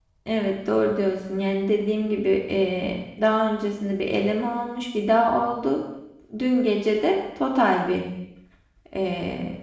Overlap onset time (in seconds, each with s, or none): none